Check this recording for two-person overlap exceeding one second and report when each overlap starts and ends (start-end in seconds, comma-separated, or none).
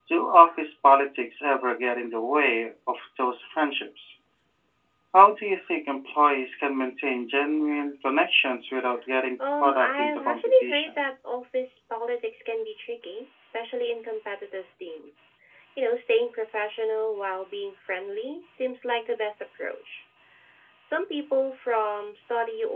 9.6-11.0